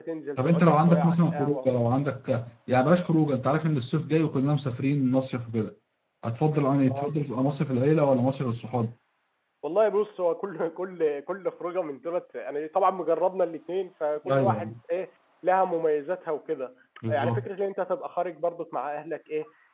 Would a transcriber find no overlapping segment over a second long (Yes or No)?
No